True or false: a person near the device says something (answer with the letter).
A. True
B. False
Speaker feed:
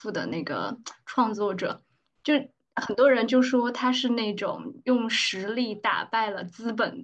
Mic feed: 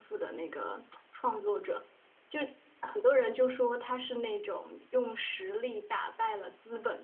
B